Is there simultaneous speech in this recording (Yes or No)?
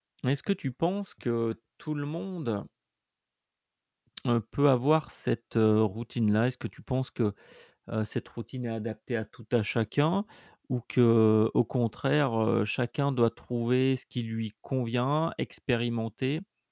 No